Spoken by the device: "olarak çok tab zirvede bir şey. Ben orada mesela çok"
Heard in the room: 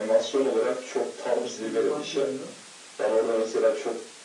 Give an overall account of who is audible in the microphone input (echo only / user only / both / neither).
both